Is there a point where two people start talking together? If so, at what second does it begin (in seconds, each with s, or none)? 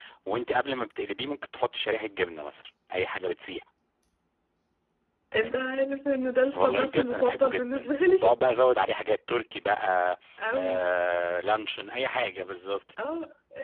6.5 s